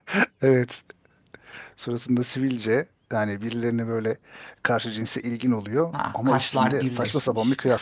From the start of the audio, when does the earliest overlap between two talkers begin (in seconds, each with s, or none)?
5.9 s